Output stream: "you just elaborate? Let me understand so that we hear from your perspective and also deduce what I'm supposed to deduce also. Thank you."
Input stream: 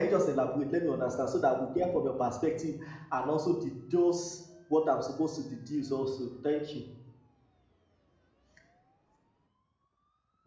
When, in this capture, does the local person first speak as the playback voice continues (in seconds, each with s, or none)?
none